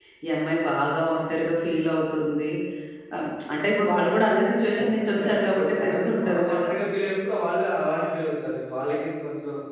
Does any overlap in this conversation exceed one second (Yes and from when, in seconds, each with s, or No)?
Yes, from 4.7 s